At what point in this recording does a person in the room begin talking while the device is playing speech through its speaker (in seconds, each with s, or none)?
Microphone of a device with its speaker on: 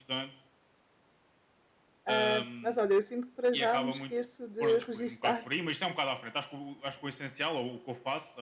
2.1 s